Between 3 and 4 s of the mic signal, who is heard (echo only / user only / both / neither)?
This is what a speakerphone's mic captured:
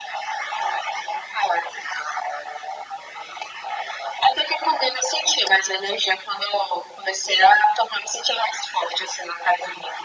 neither